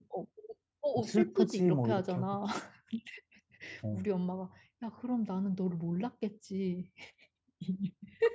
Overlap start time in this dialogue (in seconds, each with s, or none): 1.0 s